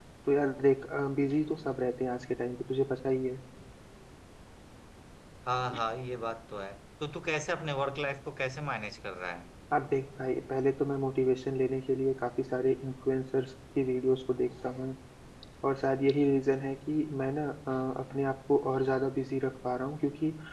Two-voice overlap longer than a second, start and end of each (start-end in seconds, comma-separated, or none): none